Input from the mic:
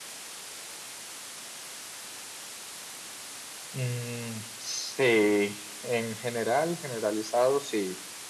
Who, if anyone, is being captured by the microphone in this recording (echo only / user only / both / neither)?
echo only